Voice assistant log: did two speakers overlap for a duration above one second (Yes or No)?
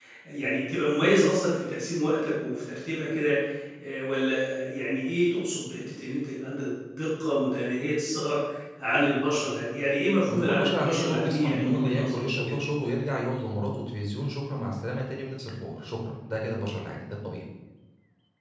Yes